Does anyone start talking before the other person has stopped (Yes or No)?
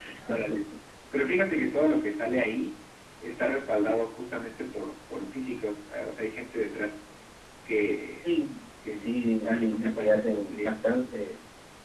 Yes